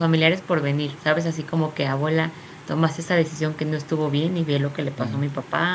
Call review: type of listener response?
listening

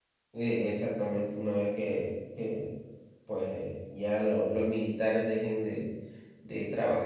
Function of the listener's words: listening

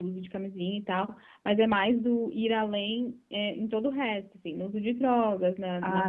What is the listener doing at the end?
taking over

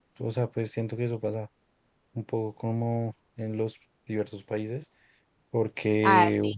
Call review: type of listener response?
taking over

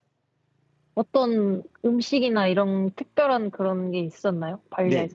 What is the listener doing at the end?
taking over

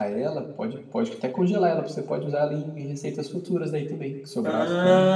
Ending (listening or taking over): taking over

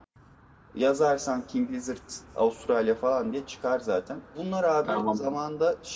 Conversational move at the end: listening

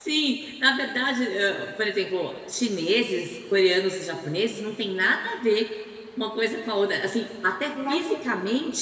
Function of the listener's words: listening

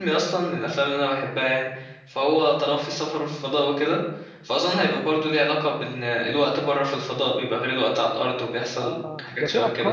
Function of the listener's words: taking over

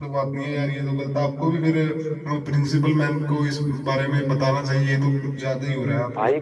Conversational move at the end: taking over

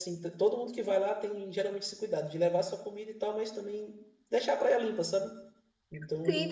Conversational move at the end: taking over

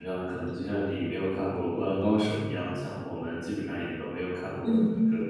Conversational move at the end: listening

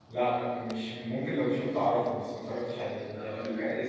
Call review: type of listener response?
taking over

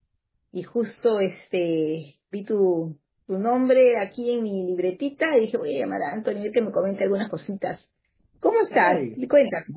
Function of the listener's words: taking over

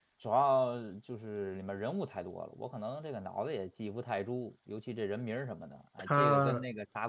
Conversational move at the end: listening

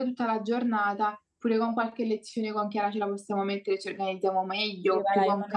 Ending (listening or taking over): taking over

